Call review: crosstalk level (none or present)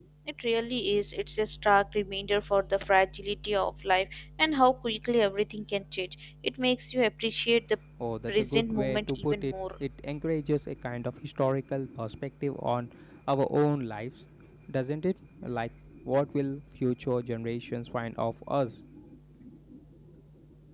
present